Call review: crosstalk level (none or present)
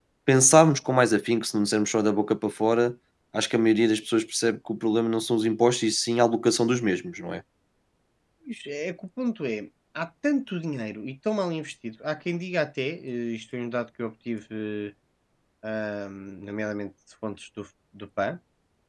none